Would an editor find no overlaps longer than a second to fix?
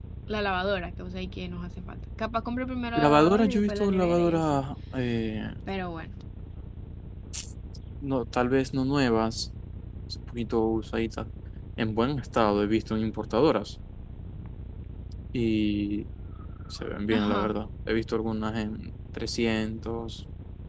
No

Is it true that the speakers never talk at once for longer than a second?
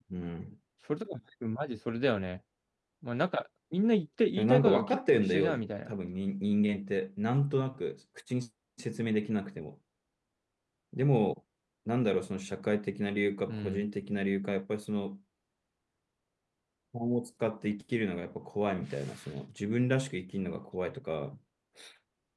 No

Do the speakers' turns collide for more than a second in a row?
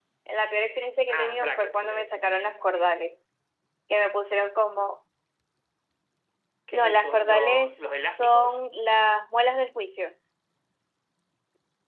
Yes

